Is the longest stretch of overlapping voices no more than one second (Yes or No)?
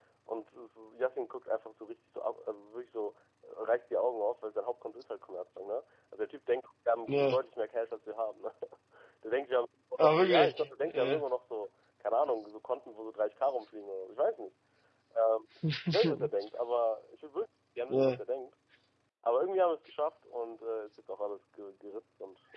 No